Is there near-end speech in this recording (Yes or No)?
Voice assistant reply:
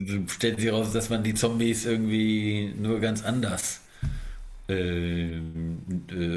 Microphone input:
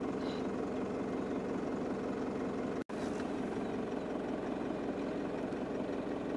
No